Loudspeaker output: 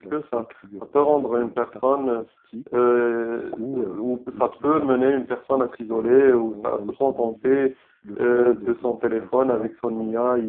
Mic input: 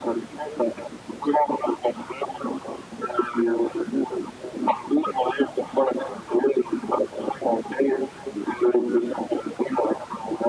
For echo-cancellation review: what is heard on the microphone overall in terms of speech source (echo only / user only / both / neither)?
echo only